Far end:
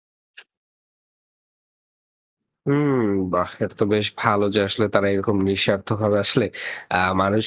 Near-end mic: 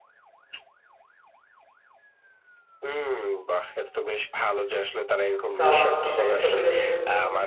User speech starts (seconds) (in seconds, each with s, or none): 5.6 s